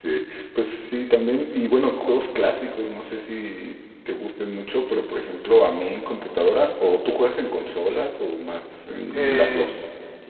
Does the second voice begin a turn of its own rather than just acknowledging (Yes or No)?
Yes